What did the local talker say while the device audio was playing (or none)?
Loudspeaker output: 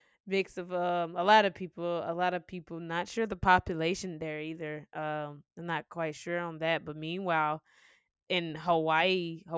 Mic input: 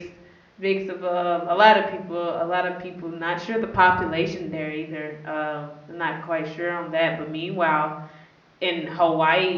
none